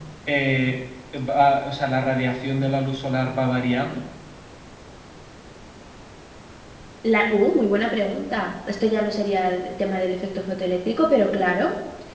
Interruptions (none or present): none